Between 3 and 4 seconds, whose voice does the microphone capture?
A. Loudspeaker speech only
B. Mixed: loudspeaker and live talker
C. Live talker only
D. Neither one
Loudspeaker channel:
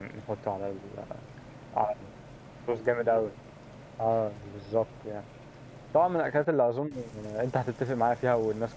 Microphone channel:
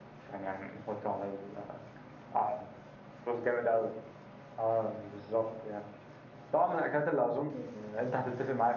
A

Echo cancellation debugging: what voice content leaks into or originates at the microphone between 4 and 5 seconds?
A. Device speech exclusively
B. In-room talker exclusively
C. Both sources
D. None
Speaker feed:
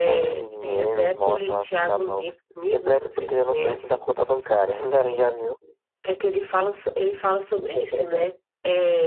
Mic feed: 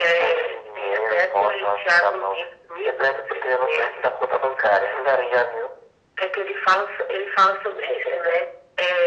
A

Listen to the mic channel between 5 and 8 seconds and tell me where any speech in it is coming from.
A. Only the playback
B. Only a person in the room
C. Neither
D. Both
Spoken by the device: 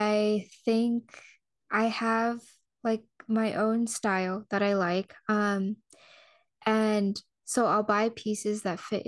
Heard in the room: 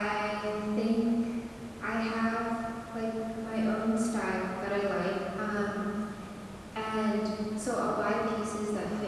A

